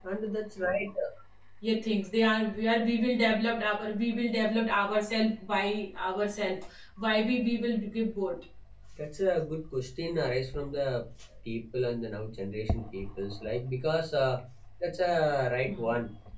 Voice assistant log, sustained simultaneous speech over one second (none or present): none